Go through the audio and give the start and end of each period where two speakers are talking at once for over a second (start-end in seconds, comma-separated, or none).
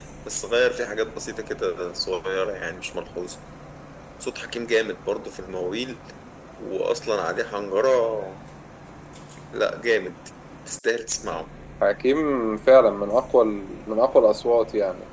none